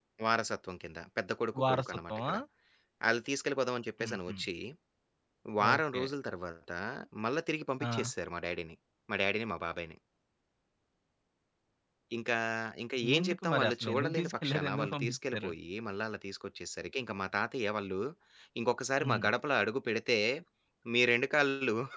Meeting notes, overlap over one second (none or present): present